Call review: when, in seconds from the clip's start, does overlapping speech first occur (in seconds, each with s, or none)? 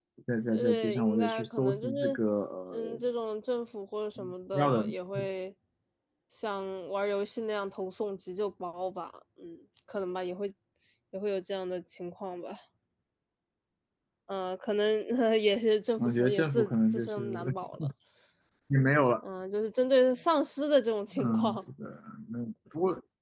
0.5 s